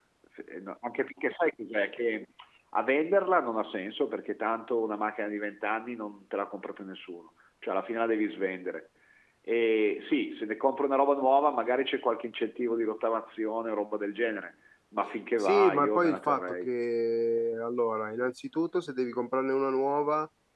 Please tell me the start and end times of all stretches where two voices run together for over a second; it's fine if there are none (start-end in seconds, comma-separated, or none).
15.4-16.7